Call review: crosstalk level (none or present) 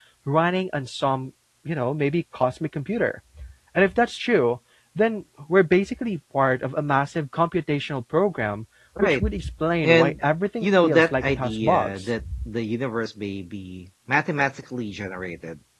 present